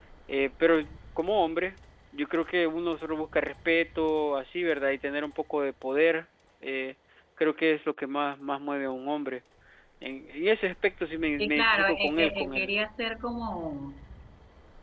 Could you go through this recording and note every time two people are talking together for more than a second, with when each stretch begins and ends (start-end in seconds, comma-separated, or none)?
11.4-12.7